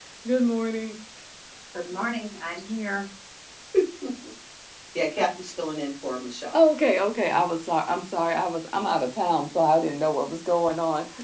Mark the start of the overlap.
none

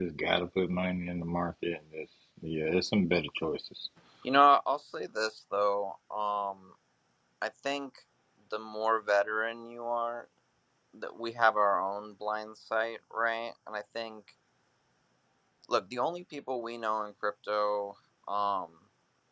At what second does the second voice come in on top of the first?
none

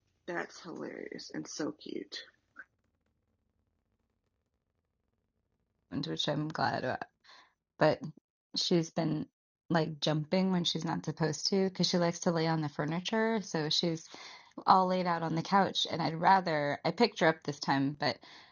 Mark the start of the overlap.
none

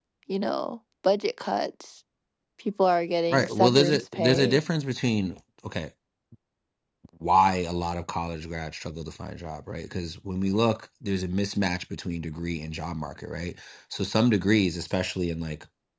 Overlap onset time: 3.3 s

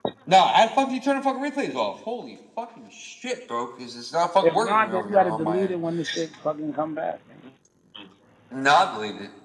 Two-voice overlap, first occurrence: 4.4 s

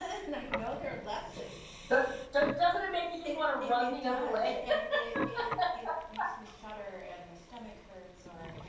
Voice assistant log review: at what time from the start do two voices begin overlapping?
3.2 s

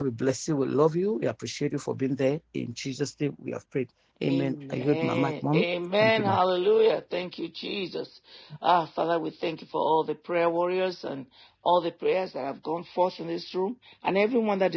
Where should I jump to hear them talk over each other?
4.2 s

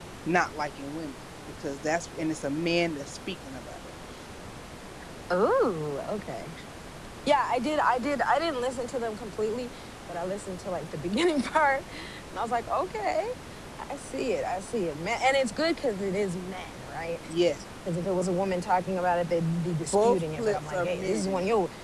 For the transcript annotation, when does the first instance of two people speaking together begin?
19.8 s

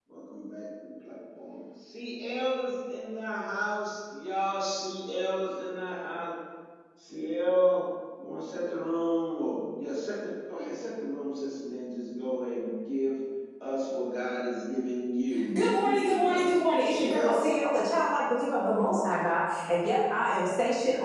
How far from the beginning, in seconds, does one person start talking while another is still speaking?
15.6 s

